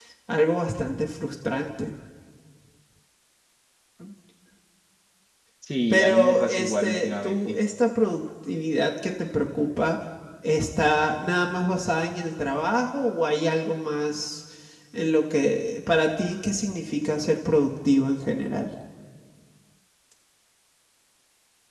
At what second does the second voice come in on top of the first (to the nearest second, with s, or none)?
6 s